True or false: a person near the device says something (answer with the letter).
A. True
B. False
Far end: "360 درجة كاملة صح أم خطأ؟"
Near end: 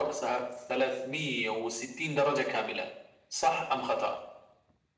B